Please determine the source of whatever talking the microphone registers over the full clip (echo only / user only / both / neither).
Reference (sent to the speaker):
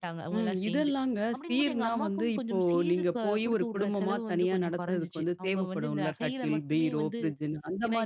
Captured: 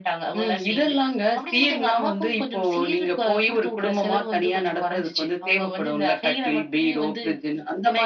echo only